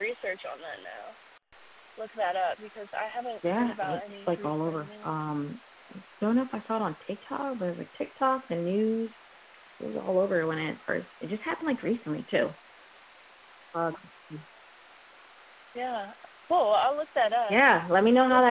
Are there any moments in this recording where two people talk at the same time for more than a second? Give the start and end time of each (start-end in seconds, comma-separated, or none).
3.4-5.4